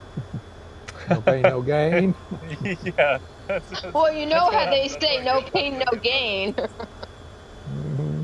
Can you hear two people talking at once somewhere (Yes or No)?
Yes